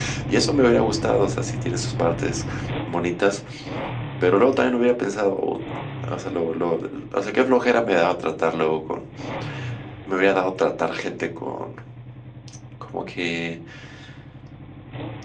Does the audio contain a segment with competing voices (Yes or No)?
No